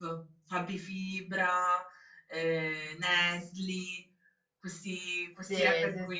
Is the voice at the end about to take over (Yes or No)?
Yes